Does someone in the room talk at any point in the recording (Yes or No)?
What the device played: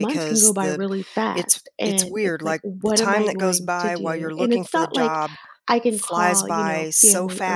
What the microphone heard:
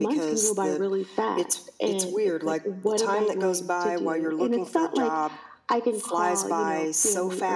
No